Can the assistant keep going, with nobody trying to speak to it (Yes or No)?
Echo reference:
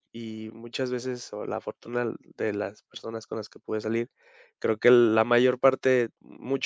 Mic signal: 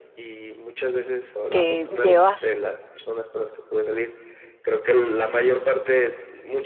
No